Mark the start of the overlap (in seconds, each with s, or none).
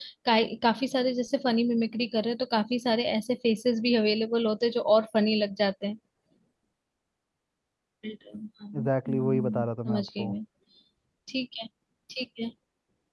8.8 s